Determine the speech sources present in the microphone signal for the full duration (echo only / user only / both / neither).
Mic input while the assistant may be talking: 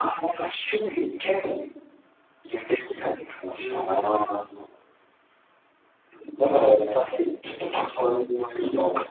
both